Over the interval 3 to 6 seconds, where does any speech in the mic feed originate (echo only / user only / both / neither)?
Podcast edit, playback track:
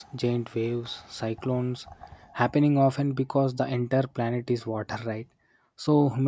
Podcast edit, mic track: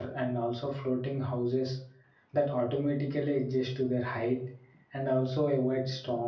user only